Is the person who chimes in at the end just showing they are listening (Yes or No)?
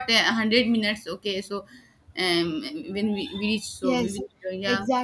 No